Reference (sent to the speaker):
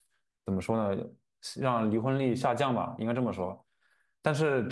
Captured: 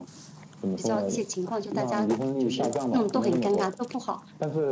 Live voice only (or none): 比较一些情况，就大家就是弄得都很尴尬，都不好。